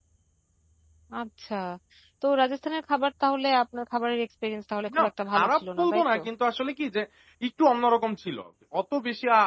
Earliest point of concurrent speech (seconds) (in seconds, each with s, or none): 4.9 s